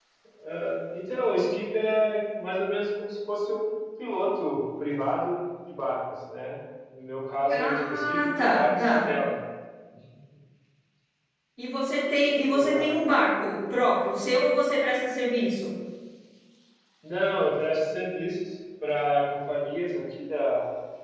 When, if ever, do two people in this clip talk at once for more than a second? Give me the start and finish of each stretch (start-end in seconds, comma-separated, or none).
7.6-8.9